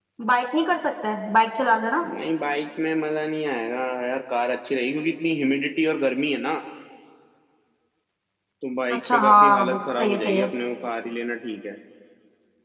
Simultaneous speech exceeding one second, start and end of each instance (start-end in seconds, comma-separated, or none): 9.1-10.5